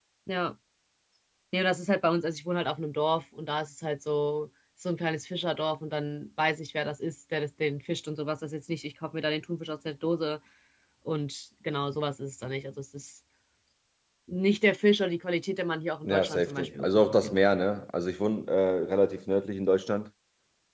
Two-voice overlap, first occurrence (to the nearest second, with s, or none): 16 s